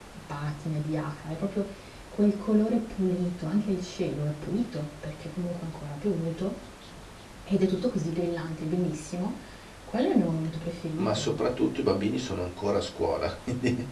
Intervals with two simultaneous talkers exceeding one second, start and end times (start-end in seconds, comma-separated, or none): none